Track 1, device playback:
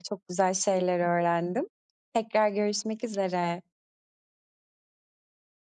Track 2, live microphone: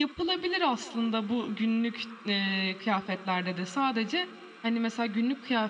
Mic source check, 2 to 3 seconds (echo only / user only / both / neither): user only